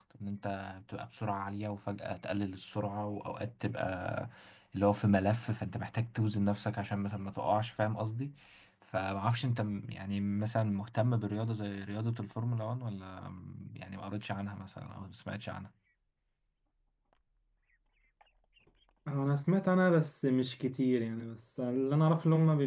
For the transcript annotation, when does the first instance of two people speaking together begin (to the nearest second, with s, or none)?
none